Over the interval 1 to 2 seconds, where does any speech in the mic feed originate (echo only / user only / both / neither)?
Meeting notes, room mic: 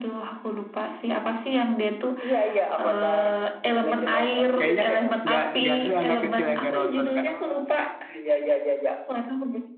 echo only